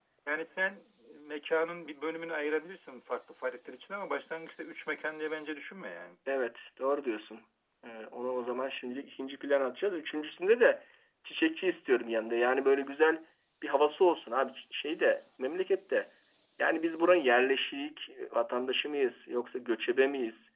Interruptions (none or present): none